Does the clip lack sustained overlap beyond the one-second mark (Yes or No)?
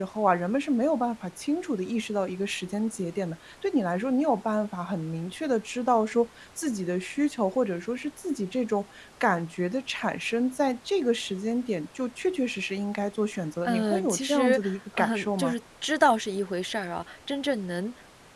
No